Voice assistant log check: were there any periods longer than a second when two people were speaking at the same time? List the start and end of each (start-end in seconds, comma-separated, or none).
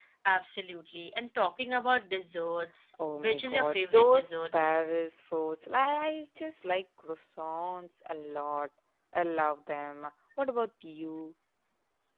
3.1-4.6